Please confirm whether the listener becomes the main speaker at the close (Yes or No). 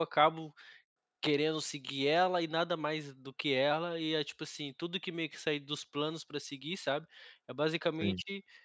No